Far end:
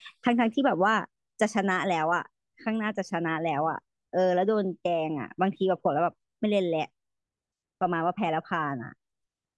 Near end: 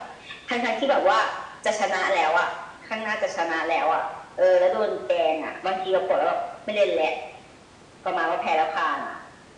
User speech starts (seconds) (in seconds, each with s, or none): none